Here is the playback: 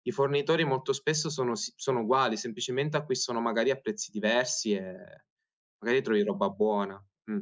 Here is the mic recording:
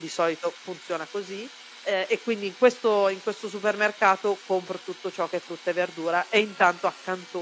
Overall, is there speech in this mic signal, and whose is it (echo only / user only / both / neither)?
user only